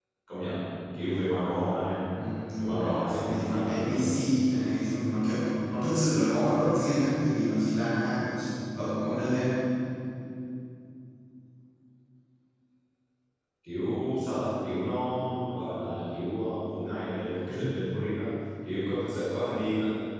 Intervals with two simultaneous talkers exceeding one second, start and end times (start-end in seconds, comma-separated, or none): 2.6-4.0